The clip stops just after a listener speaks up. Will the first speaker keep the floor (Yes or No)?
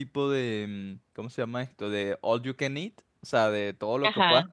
Yes